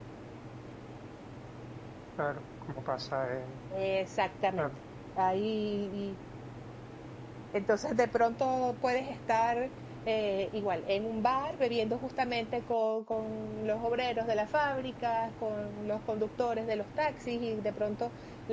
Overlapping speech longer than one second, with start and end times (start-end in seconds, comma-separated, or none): none